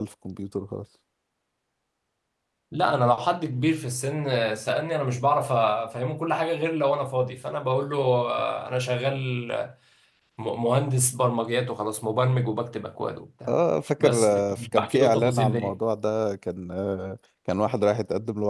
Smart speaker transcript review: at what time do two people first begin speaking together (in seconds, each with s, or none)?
14.0 s